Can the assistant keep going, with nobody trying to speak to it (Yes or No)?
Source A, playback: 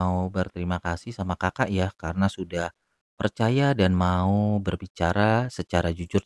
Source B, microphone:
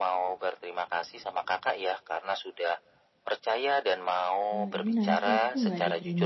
No